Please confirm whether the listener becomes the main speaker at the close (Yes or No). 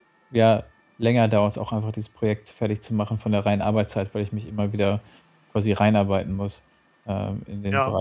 Yes